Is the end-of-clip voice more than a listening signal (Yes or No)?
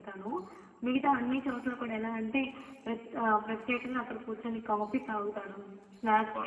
No